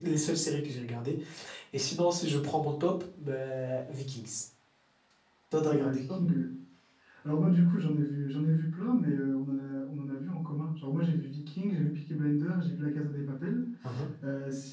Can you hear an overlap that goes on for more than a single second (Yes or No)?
No